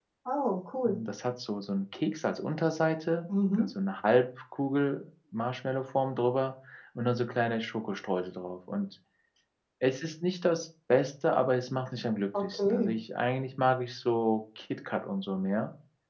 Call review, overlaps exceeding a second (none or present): none